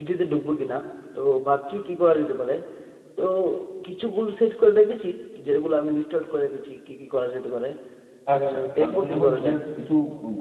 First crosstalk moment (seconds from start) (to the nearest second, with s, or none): 8 s